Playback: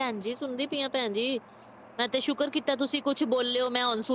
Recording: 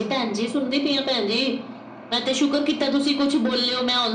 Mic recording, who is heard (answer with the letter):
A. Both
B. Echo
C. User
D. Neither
B